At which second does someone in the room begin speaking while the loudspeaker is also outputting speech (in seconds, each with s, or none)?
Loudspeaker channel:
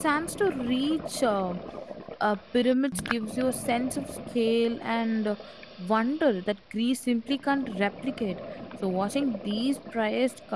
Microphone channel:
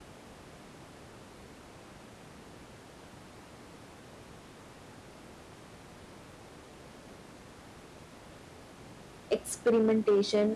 9.4 s